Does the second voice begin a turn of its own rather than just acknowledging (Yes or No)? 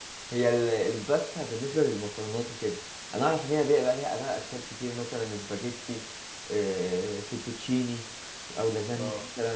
No